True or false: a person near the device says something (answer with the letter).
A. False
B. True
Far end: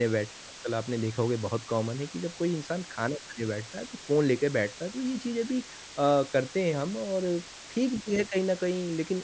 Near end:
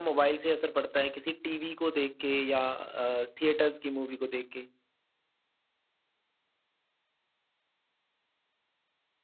B